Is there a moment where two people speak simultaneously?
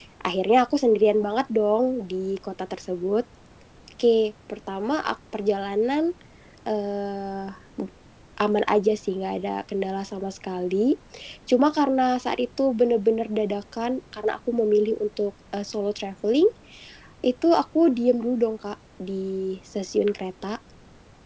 No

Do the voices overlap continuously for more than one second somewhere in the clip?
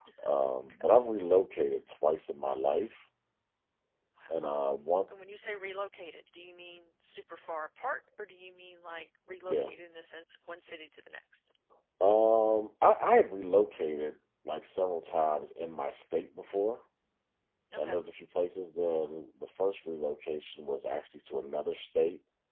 No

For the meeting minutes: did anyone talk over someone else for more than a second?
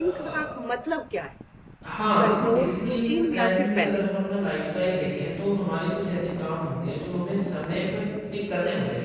Yes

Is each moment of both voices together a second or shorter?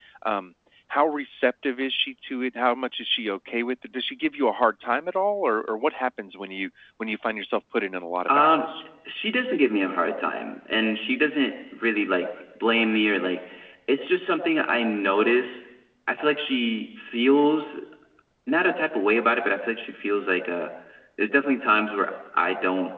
Yes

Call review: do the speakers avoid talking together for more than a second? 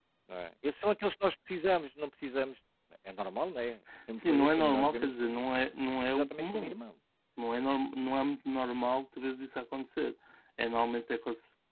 No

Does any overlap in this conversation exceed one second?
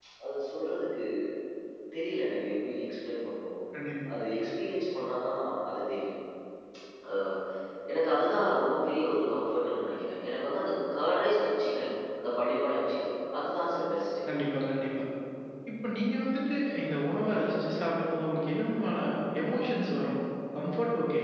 No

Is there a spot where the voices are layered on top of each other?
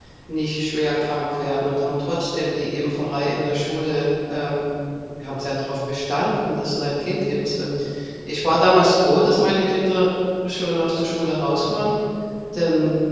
No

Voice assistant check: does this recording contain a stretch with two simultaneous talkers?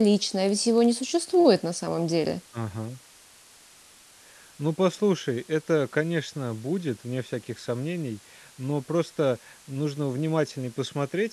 No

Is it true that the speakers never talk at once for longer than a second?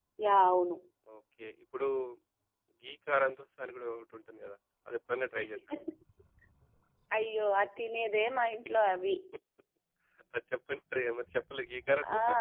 Yes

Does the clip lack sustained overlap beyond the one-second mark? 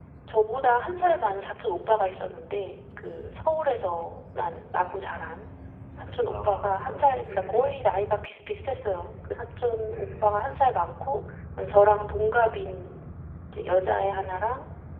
No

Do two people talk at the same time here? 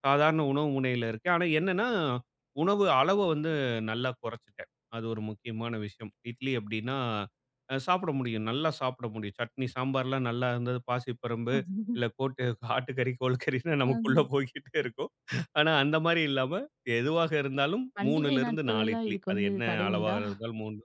Yes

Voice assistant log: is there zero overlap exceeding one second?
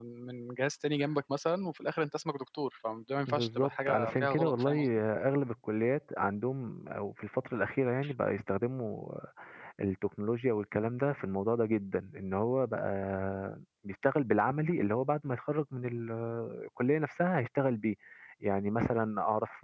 No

